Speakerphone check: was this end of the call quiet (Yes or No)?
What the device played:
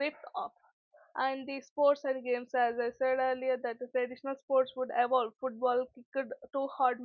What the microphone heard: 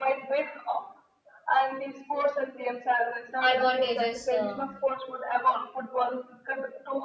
No